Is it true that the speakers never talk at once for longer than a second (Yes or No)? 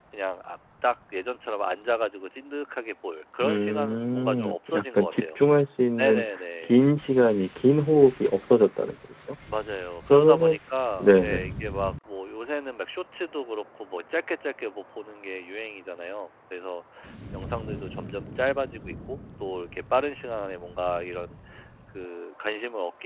No